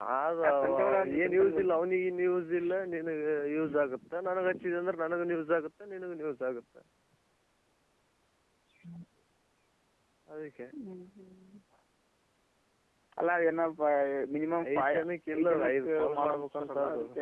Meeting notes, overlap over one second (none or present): present